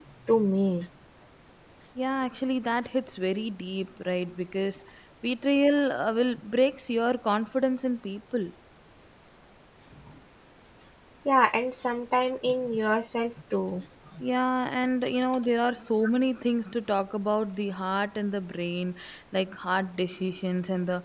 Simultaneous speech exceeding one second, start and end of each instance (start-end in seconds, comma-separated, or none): none